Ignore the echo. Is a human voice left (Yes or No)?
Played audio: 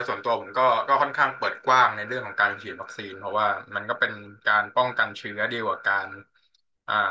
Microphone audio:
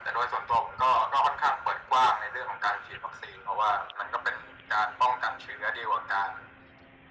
No